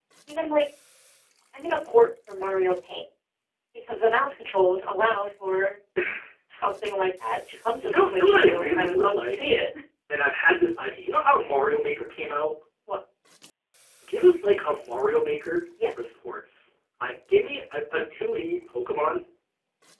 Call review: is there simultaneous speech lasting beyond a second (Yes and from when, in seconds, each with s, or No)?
Yes, from 7.8 s